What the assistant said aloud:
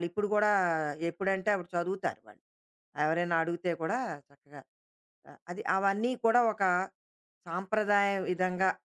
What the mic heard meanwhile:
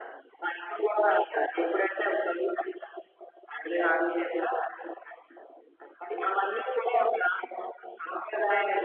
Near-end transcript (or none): none